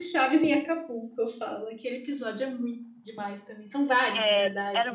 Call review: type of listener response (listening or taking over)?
taking over